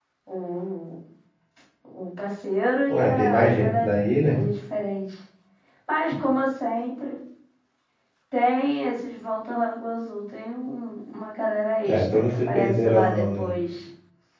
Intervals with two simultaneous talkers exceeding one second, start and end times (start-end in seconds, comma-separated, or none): 2.9-4.4, 11.8-13.5